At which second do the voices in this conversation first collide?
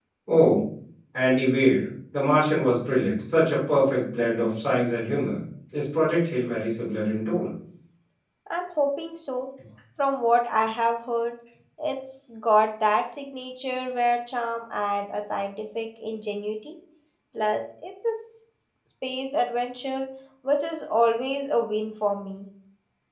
none

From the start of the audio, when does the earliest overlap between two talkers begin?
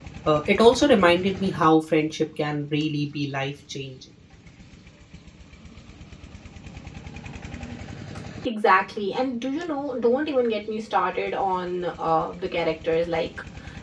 none

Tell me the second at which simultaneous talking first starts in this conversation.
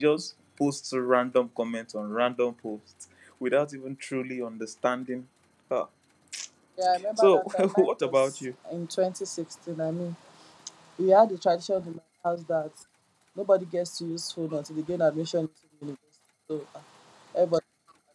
7.2 s

